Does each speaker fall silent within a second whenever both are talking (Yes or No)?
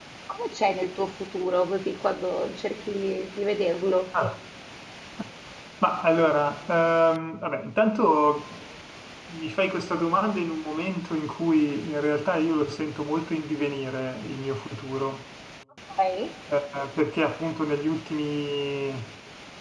Yes